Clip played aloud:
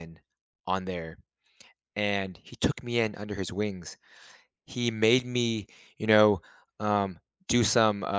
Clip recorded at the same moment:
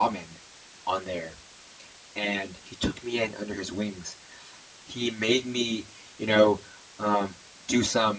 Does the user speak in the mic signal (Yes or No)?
No